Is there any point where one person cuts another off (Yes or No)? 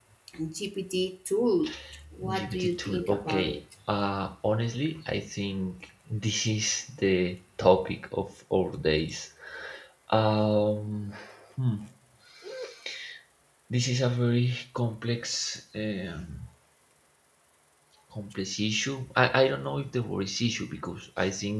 Yes